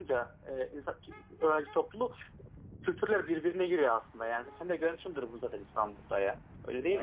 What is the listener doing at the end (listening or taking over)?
taking over